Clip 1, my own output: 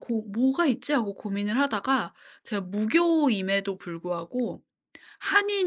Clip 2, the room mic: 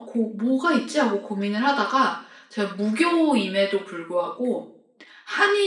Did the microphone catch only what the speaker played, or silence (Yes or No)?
Yes